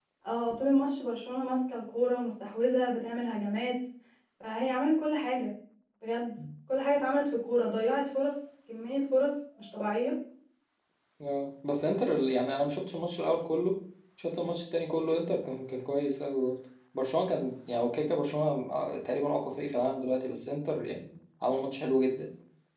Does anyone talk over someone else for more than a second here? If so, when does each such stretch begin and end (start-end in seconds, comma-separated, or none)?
none